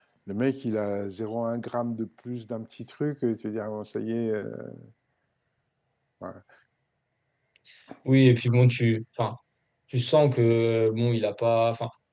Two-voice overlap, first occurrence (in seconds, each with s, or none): none